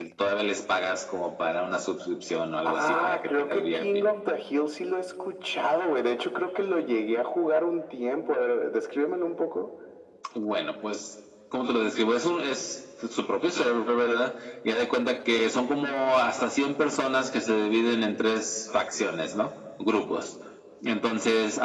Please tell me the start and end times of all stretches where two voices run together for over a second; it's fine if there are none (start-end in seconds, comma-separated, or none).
2.6-3.8